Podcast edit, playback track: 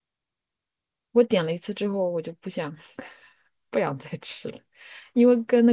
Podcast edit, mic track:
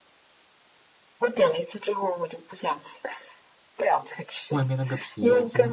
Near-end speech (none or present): present